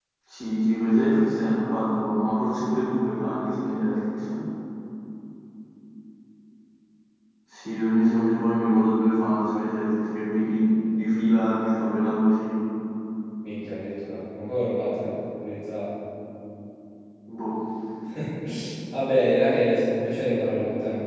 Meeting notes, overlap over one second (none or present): none